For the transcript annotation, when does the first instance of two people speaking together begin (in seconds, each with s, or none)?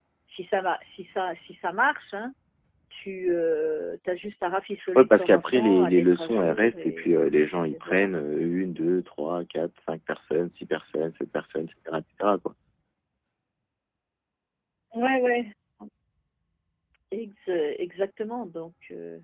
5.0 s